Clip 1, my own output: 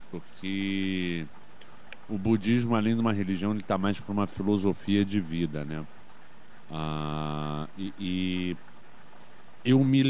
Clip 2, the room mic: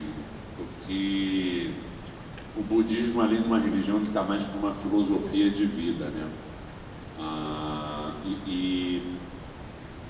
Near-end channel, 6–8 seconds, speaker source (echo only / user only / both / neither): echo only